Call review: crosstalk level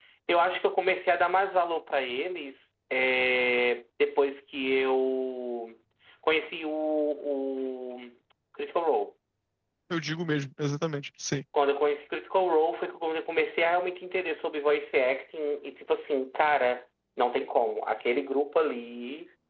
none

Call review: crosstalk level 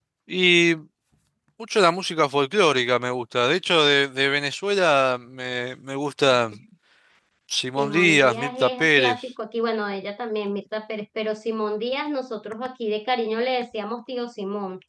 present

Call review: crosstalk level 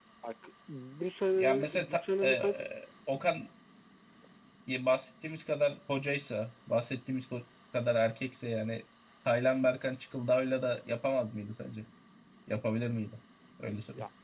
present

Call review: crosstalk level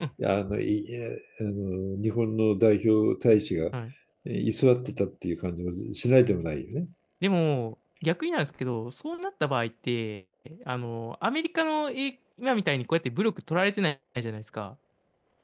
none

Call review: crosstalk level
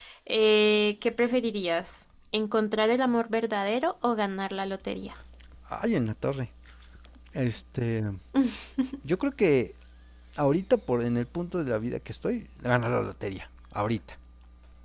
none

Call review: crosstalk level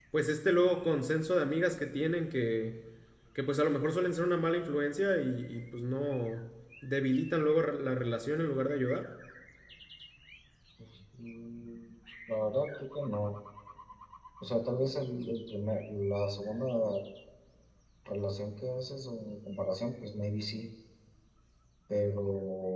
none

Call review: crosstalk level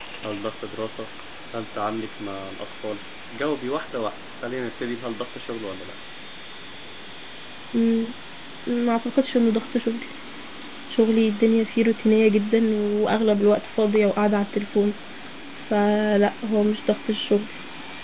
none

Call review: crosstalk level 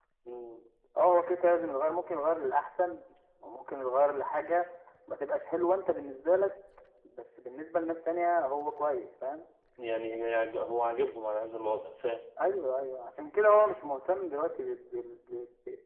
none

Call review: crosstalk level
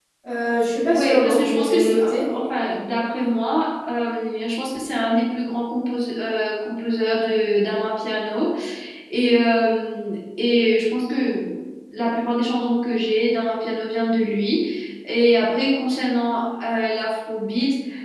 present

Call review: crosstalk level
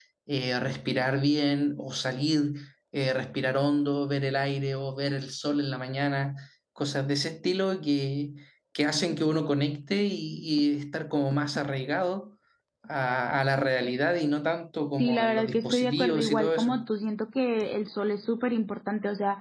present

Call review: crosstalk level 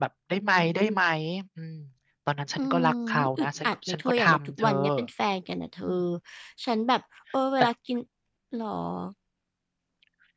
present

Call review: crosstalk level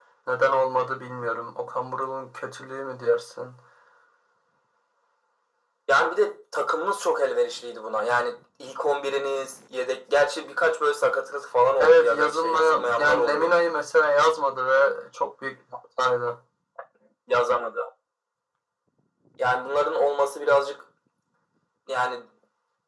present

